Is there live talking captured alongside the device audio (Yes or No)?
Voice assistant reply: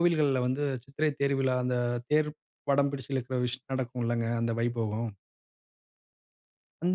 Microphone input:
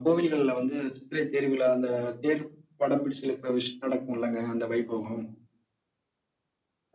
No